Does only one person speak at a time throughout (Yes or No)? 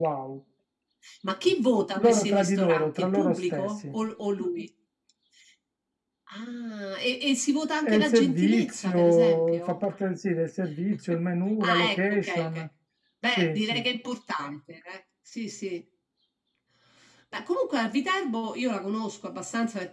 No